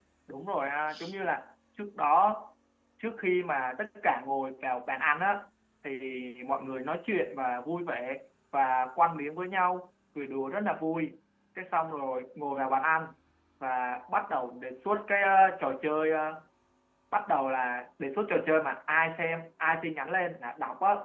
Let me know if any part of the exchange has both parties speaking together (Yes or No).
No